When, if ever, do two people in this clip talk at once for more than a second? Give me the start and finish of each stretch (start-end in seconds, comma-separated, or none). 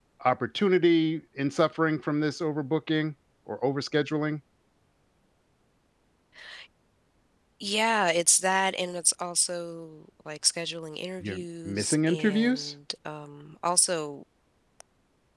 11.2-12.7